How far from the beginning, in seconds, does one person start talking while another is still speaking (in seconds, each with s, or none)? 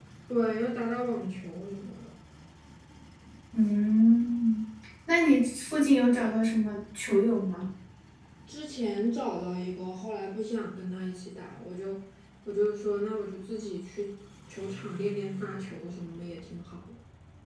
none